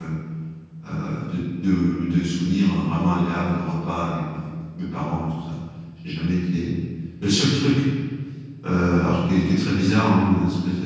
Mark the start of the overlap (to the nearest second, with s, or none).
none